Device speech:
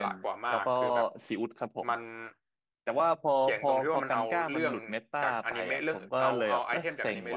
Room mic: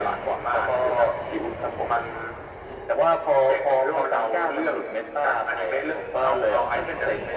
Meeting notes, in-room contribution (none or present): none